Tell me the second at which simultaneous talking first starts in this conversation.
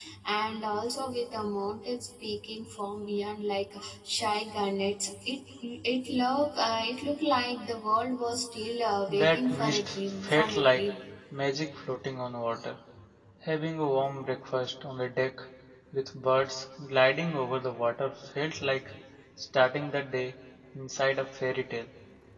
9.1 s

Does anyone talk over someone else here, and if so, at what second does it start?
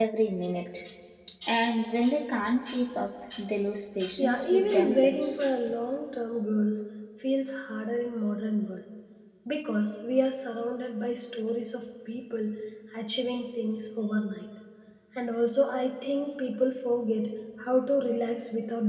4.2 s

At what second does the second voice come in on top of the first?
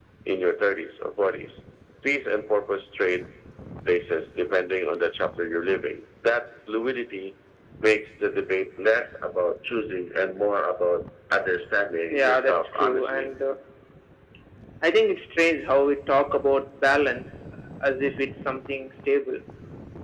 12.1 s

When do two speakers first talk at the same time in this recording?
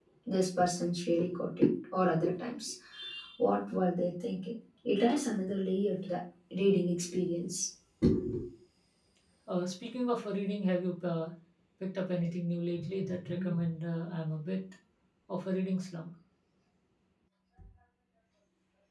none

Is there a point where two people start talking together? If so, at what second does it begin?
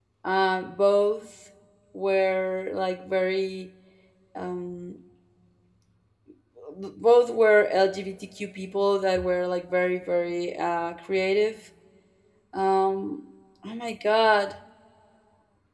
none

